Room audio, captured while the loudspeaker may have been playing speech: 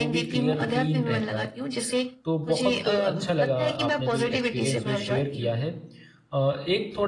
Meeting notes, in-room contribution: present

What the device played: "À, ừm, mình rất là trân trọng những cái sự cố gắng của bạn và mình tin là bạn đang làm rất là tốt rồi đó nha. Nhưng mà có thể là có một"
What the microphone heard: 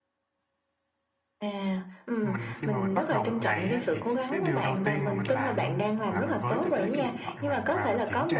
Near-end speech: present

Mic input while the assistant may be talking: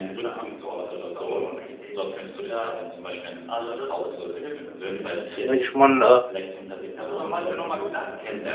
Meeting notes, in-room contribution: present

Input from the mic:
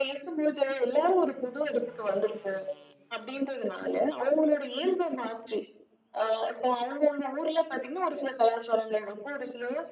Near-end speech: none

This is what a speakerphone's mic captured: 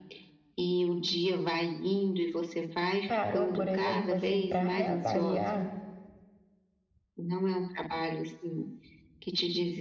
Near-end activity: present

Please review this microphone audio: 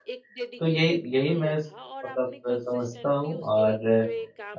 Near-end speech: present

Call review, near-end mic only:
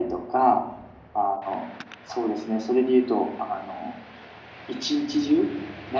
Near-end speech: none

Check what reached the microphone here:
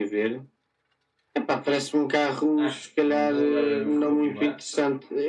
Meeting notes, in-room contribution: present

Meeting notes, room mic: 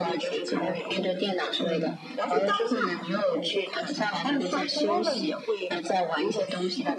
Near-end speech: none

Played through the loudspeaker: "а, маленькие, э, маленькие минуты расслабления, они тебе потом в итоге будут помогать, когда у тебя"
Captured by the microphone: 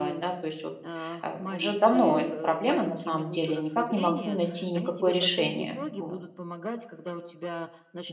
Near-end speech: present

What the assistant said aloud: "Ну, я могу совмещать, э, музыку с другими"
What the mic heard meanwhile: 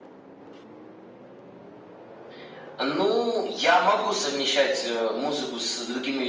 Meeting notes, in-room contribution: none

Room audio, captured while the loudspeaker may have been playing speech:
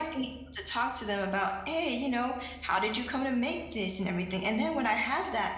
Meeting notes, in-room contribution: none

